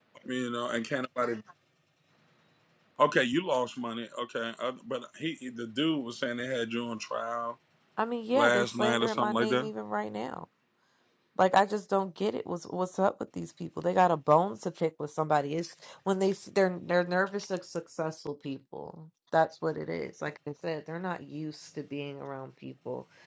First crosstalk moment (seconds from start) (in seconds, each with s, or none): 8.3 s